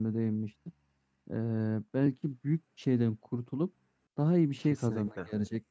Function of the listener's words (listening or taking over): listening